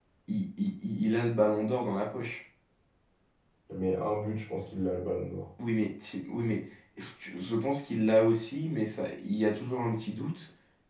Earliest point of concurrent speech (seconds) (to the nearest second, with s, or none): none